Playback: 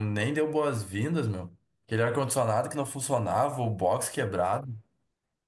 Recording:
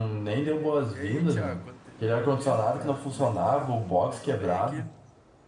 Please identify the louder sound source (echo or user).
echo